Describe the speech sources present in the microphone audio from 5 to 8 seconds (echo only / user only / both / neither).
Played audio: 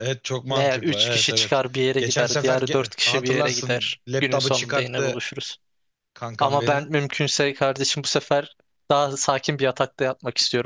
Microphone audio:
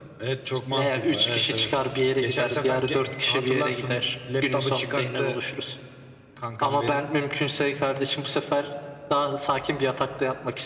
echo only